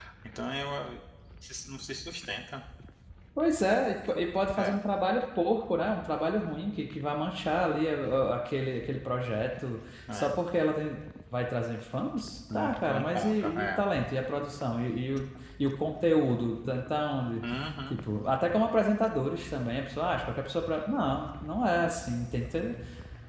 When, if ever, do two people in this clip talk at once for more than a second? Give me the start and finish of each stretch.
12.5-13.8

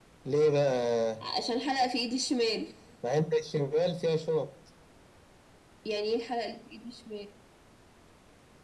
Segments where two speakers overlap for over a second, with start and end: none

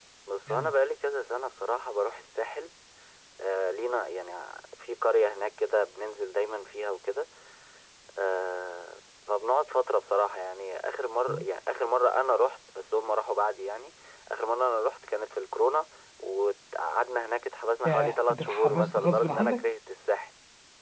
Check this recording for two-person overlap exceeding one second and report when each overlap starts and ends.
17.8-19.7

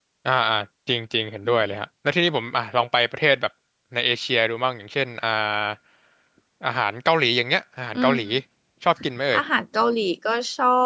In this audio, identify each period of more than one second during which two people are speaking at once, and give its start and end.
none

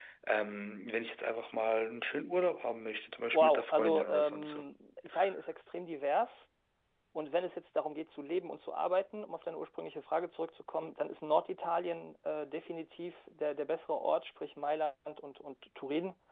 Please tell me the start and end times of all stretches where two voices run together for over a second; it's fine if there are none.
3.3-4.6

